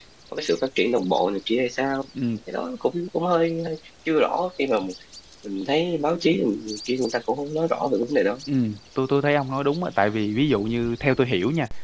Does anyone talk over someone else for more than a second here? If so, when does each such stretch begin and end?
none

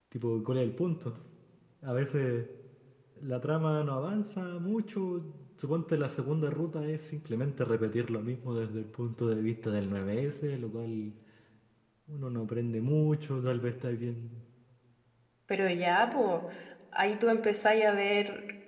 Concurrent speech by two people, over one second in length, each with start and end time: none

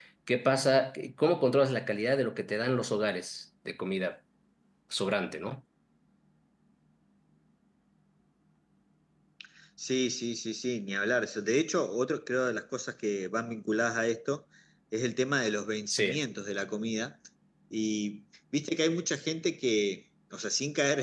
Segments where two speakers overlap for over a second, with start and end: none

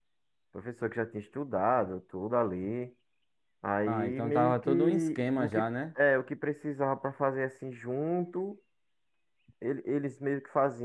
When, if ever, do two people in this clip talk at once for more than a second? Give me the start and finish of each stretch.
3.9-5.7

